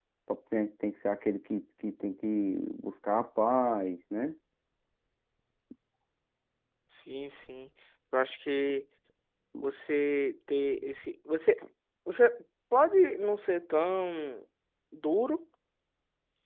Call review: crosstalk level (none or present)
none